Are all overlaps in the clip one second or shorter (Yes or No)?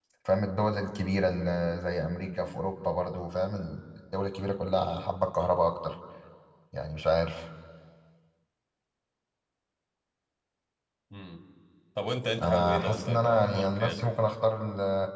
No